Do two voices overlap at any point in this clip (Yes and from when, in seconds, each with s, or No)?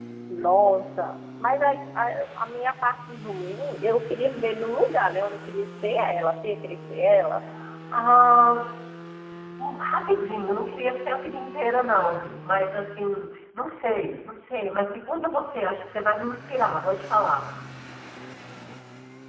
No